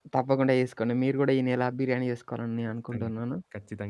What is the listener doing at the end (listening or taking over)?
taking over